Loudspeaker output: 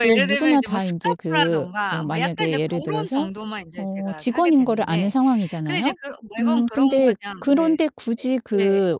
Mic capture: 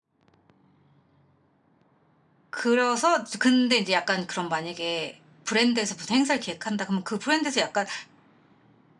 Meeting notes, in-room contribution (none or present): present